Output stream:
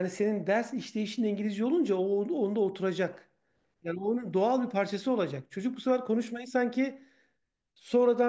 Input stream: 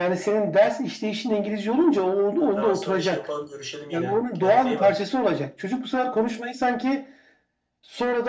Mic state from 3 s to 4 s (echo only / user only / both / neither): both